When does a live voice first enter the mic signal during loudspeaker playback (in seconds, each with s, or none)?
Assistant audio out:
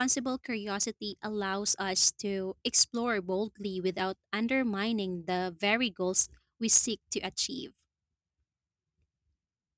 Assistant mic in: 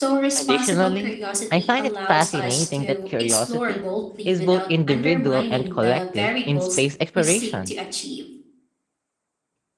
0.4 s